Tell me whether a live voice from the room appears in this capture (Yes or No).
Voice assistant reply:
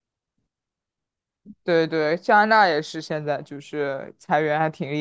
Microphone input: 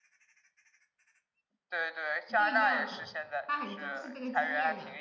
Yes